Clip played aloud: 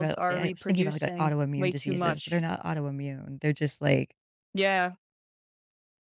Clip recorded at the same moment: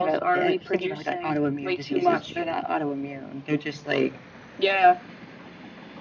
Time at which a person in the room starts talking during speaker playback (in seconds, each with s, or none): none